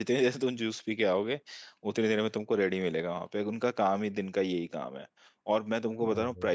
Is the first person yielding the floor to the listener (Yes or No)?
No